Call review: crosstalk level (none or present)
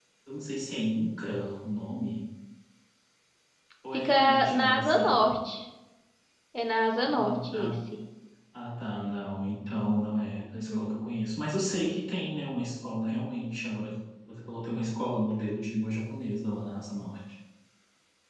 present